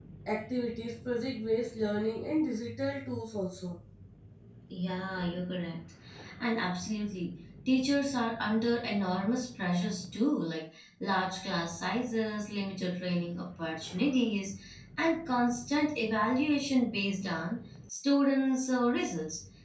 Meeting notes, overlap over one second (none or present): none